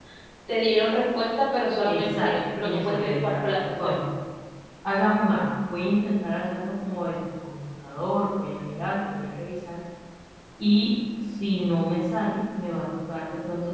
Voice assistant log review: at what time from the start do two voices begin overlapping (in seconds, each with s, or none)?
1.9 s